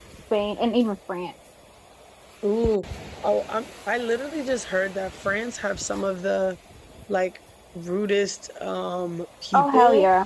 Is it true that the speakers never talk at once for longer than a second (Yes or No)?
Yes